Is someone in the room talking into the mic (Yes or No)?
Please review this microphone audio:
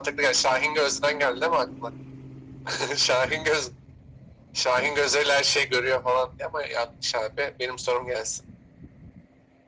No